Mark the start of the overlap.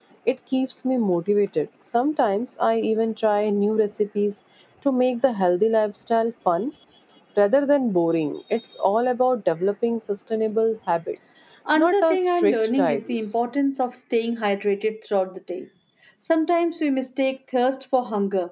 11.8 s

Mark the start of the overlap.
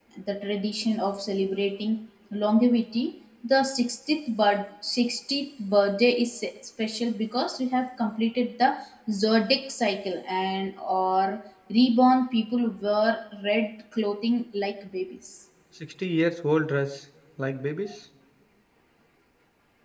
none

